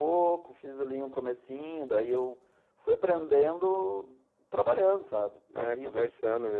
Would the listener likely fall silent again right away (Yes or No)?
No